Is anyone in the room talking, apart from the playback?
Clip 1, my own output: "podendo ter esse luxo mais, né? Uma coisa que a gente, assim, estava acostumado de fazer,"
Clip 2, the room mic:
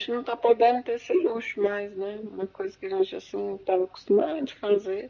No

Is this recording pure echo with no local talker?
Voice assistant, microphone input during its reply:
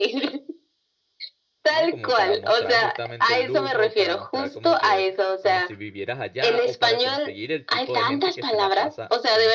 No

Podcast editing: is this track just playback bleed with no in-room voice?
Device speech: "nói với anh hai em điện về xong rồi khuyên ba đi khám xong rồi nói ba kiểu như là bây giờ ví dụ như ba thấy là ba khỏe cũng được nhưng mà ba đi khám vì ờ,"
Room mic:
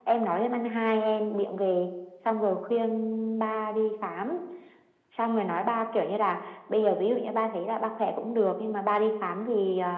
Yes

